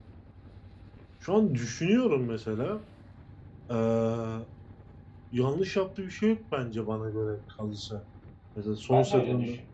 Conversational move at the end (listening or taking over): taking over